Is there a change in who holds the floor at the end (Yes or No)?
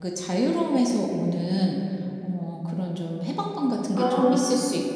No